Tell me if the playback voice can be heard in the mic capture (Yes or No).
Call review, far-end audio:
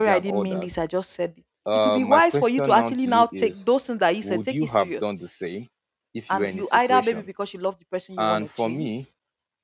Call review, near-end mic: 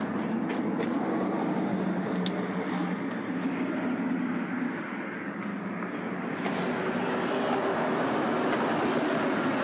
No